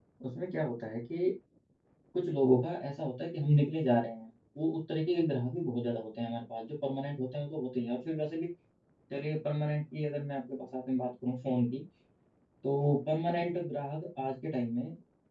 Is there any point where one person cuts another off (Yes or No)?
No